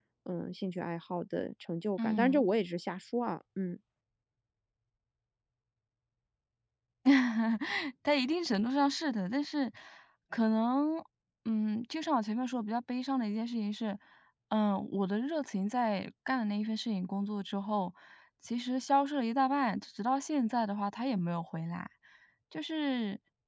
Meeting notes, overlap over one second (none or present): none